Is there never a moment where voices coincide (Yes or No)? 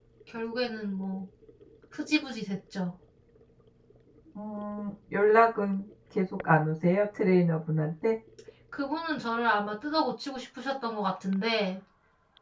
Yes